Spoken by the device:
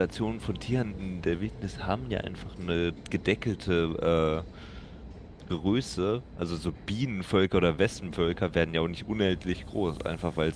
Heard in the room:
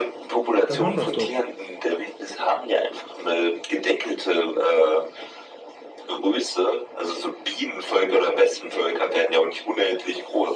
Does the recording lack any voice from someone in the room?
No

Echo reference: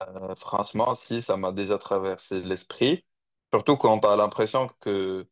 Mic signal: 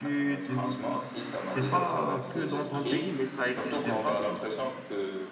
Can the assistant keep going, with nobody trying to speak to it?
No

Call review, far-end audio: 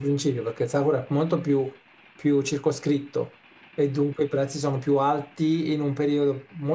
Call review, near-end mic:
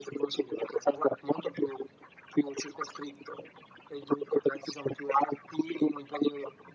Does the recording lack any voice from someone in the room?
Yes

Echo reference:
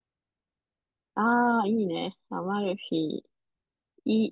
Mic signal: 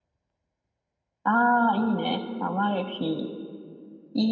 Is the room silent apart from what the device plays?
Yes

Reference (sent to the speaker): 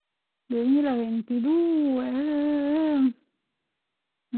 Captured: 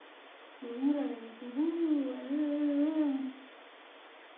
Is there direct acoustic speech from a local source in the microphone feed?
No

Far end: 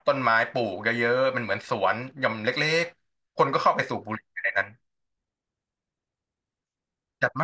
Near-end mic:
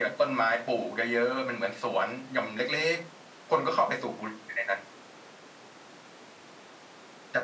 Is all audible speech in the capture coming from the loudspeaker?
Yes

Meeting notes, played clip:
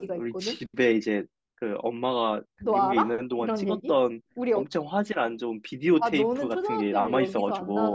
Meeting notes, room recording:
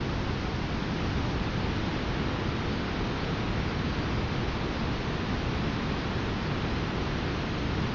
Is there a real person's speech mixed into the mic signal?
No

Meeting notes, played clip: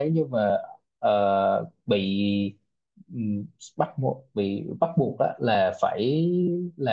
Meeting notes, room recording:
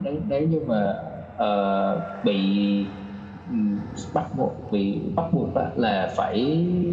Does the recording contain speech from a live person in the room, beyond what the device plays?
No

